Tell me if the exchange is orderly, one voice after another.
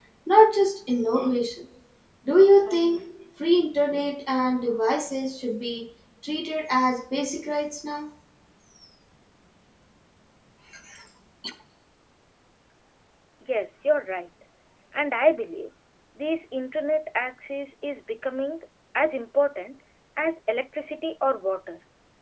Yes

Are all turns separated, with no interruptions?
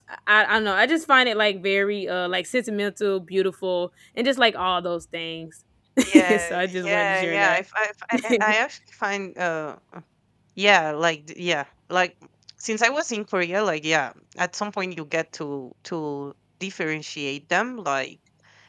No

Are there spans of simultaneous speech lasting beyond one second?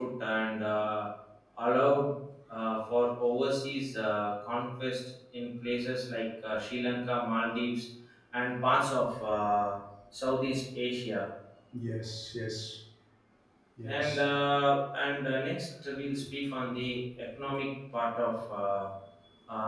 No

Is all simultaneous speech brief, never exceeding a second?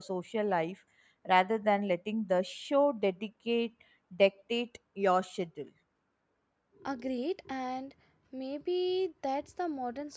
Yes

